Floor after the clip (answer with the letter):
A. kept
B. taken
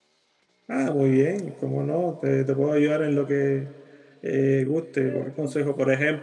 A